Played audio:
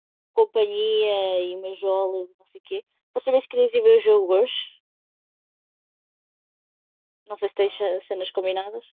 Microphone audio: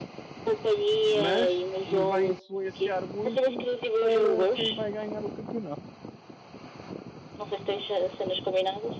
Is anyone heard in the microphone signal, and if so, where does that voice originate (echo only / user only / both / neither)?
both